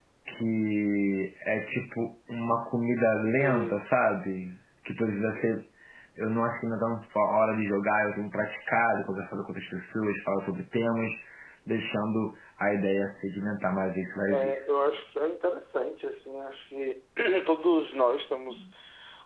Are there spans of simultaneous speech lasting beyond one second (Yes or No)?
No